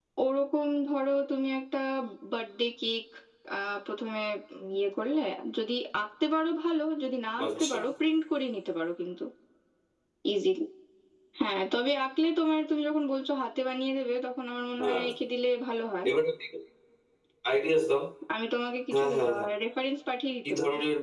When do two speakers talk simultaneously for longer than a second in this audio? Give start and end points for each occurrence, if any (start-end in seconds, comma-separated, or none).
none